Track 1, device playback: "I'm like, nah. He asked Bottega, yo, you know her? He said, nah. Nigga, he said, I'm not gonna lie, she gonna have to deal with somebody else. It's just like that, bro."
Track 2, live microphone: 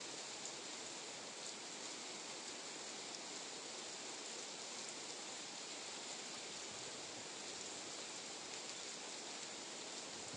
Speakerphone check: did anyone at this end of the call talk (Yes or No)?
No